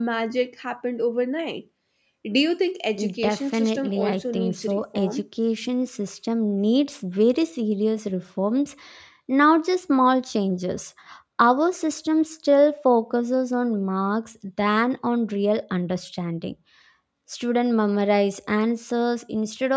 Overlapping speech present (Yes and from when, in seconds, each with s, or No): Yes, from 3.2 s